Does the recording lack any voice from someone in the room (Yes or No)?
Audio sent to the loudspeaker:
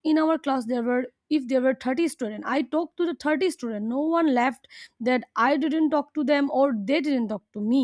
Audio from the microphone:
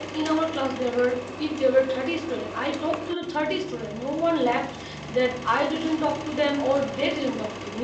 Yes